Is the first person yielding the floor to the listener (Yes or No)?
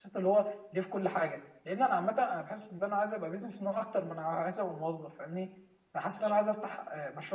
No